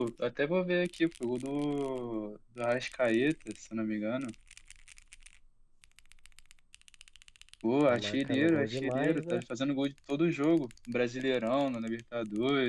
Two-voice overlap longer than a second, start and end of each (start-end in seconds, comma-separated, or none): 7.9-9.4